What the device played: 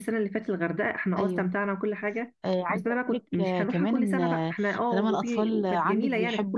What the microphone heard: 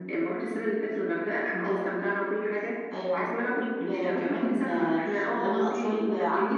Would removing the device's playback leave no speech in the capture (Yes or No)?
Yes